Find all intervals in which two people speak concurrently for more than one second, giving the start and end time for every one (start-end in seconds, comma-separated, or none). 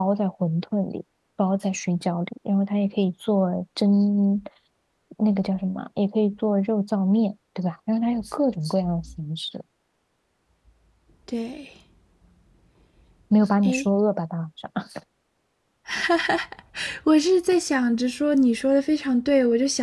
none